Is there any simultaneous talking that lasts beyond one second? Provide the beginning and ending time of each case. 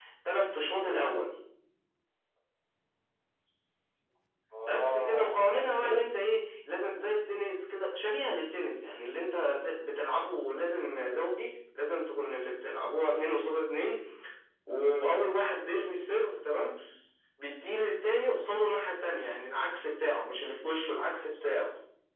4.7-6.0

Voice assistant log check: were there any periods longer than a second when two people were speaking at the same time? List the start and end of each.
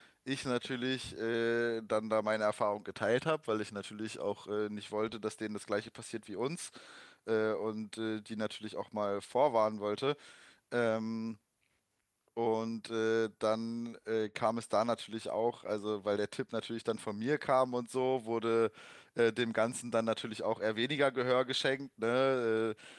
none

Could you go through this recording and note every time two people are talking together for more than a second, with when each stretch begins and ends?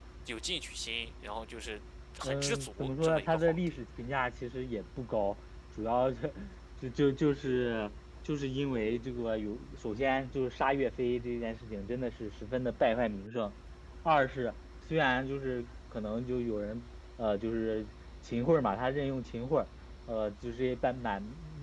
2.2-3.8

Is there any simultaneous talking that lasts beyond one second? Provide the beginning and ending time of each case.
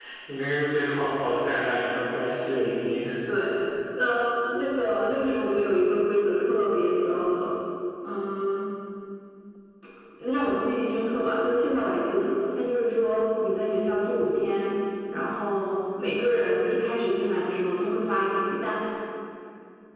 none

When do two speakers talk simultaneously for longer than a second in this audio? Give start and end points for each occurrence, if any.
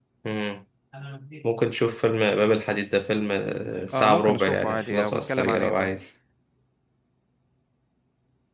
3.9-5.9

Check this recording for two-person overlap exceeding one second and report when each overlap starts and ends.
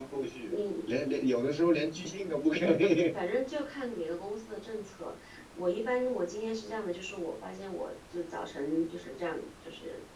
none

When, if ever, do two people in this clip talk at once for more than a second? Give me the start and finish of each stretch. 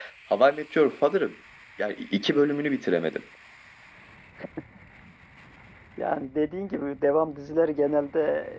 none

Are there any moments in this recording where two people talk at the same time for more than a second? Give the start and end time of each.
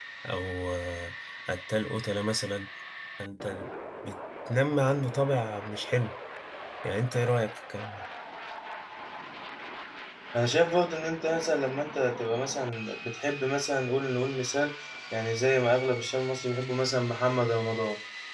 none

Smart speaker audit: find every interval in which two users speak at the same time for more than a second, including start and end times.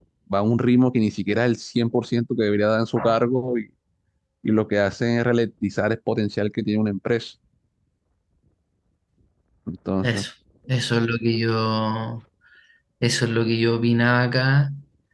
none

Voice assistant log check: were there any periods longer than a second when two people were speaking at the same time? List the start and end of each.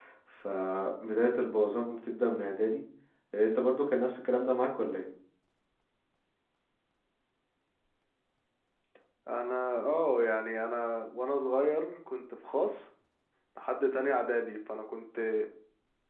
none

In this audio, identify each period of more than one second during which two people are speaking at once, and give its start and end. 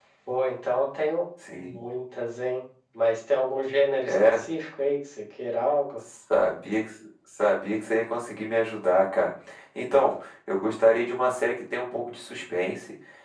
none

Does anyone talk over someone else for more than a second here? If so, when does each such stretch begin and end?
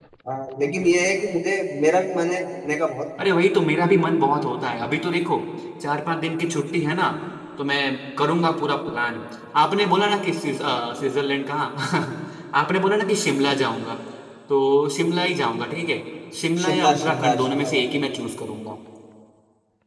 16.6-18.0

